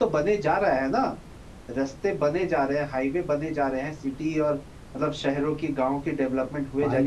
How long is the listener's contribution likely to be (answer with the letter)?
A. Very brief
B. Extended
B